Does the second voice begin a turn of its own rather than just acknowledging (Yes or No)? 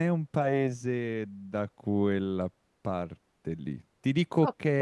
No